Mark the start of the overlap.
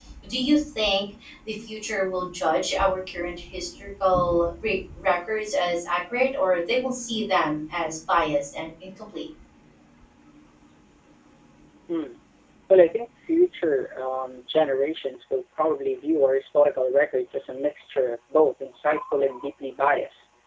none

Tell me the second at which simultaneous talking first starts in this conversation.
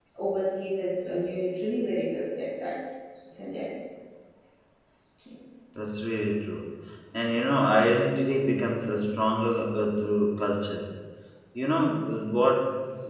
none

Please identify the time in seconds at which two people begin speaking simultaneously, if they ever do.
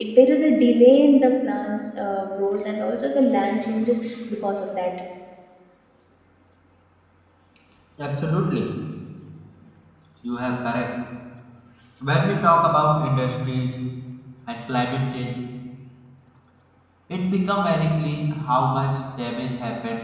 none

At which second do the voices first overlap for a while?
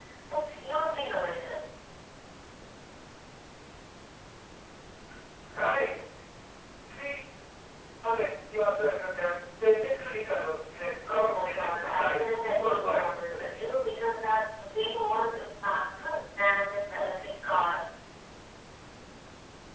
11.1 s

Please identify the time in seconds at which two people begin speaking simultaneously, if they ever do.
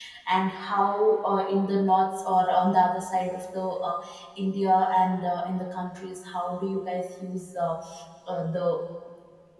none

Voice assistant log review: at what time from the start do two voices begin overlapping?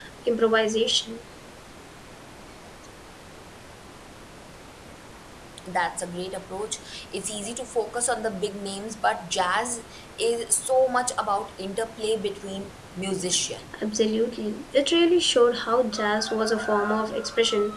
none

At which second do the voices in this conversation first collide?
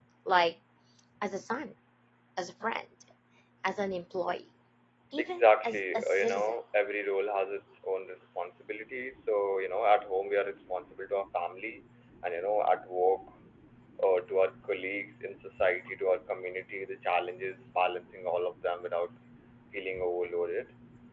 5.2 s

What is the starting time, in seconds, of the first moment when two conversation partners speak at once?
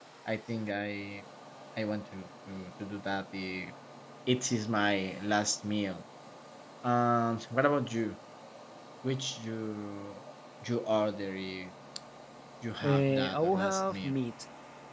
12.8 s

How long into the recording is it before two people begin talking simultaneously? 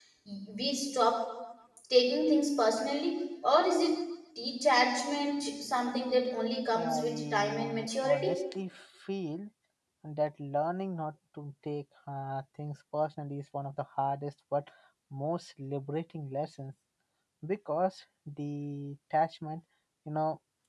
6.7 s

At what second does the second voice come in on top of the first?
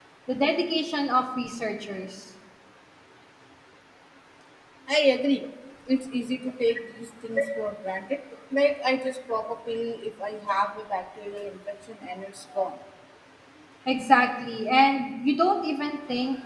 none

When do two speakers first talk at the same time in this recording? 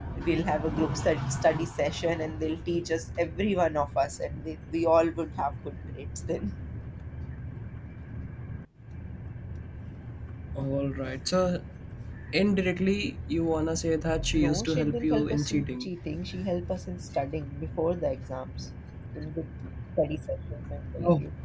14.3 s

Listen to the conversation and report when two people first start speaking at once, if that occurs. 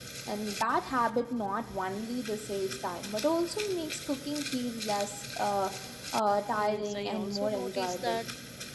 6.5 s

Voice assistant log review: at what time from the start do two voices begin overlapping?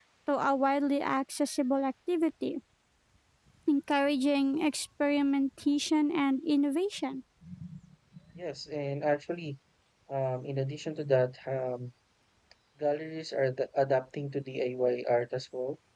none

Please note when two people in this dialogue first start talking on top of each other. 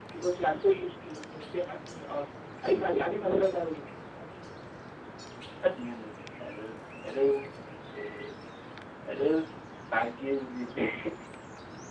none

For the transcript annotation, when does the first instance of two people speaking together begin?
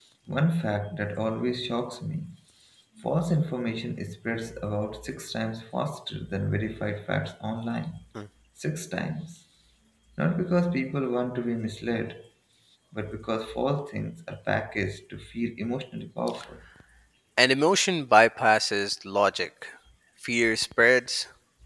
none

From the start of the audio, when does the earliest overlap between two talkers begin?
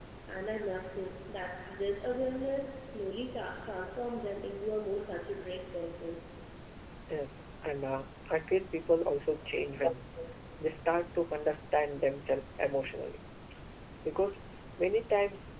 none

